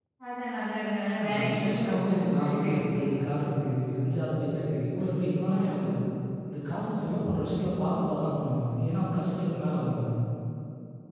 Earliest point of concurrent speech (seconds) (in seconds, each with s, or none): 1.2 s